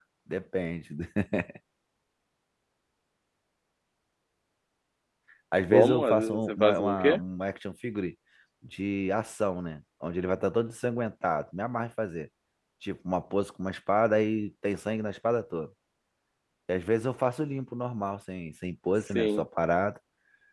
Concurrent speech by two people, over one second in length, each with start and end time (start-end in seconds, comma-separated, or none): 5.7-7.2